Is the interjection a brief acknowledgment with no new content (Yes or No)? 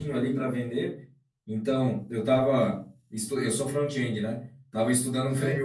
Yes